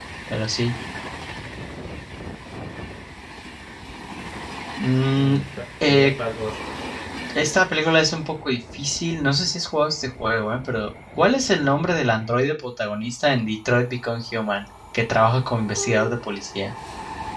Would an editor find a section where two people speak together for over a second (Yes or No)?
No